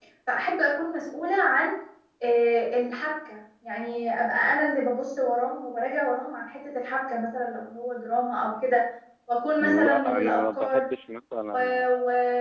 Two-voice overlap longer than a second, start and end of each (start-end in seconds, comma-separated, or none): 9.6-10.8